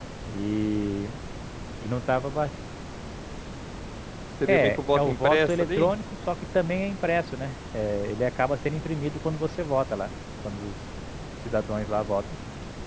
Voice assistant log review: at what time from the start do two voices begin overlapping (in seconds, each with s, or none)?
4.5 s